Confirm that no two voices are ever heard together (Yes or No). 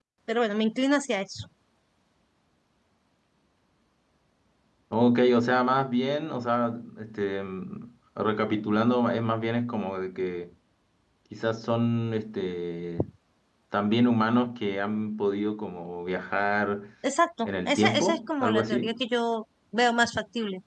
No